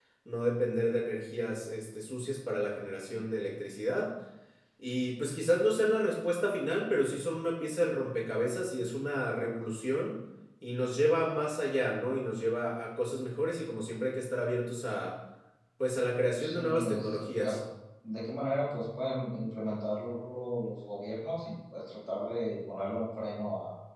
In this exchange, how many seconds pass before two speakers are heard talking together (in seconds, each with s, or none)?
16.4 s